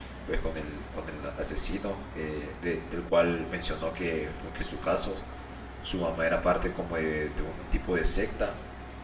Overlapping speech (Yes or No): No